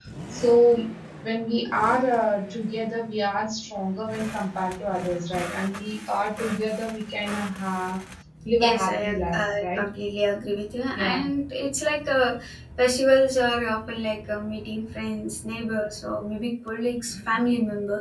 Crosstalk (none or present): present